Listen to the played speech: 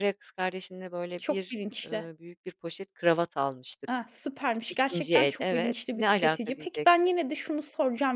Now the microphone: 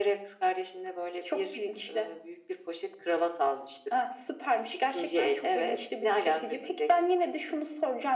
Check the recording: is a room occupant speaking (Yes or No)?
No